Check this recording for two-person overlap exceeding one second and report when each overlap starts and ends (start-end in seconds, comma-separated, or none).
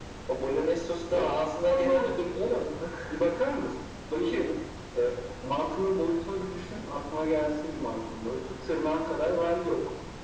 none